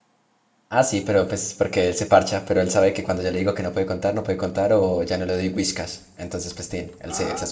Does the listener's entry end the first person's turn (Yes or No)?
Yes